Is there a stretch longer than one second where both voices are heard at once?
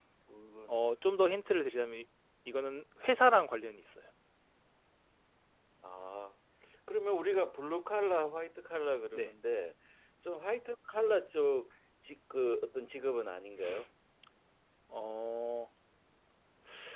No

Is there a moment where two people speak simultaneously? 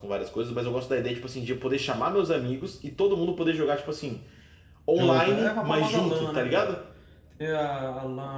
Yes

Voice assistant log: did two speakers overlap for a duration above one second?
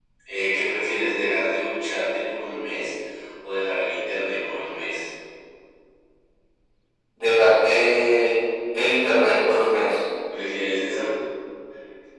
No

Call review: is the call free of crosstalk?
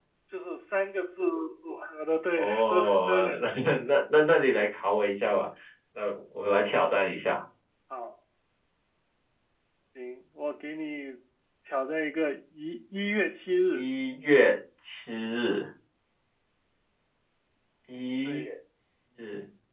No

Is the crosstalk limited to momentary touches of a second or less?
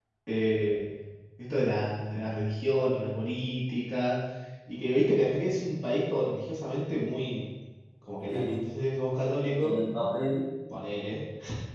Yes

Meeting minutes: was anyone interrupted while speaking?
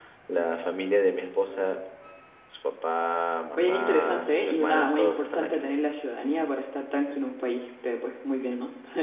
Yes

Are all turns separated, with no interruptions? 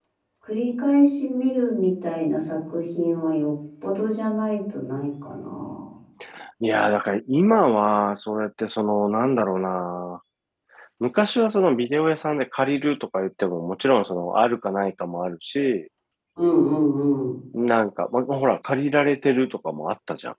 Yes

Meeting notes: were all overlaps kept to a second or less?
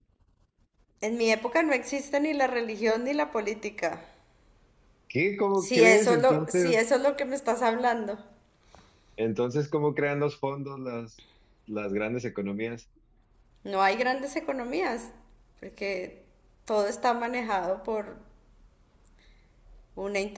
No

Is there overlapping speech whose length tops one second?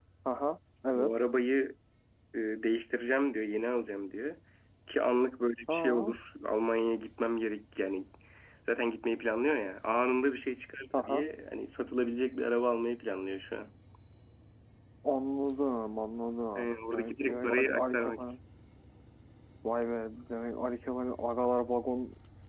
Yes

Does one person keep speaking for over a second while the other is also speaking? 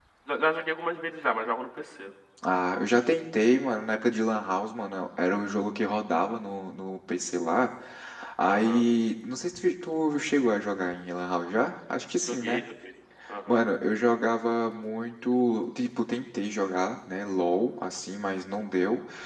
No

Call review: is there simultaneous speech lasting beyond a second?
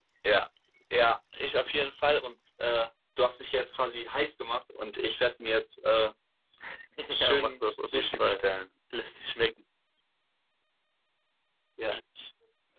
Yes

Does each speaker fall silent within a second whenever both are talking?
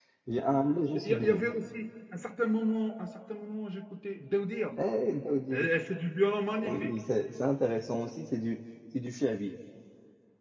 Yes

